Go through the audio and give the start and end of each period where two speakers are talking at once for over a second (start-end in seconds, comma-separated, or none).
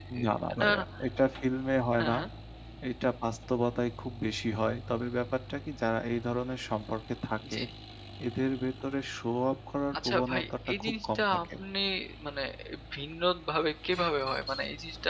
10.0-11.4